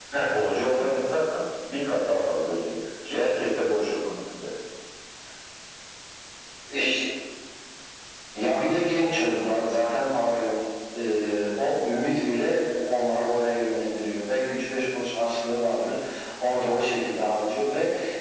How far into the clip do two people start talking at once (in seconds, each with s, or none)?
none